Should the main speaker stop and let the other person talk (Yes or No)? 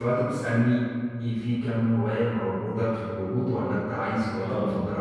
Yes